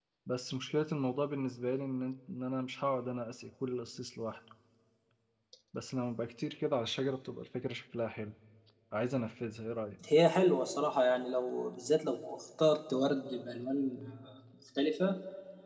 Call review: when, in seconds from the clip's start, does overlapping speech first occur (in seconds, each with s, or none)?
none